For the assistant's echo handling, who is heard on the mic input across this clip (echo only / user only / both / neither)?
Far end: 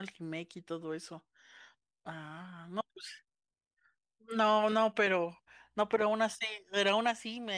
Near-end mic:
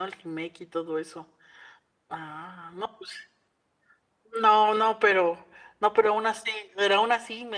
echo only